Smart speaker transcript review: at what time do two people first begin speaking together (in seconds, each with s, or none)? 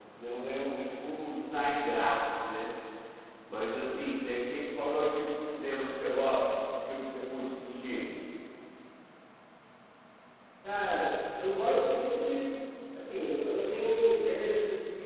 none